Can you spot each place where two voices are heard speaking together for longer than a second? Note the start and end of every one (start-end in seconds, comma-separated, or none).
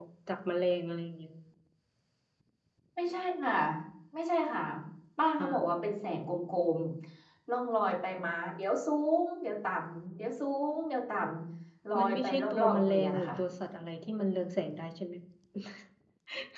12.0-13.3